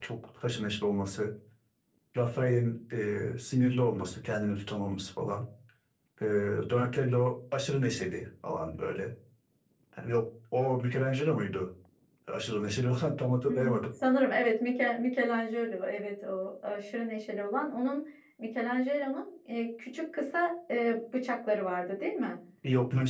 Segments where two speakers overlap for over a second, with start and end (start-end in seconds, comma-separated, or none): none